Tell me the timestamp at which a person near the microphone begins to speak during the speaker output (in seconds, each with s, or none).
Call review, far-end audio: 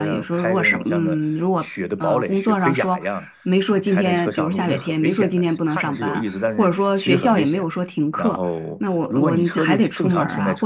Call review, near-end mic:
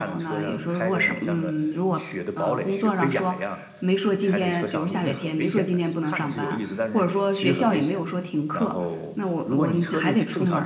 none